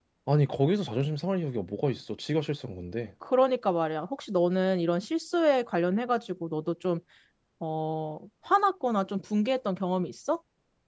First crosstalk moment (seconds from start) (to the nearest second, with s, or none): none